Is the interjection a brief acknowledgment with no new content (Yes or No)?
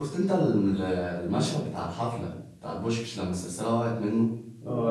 No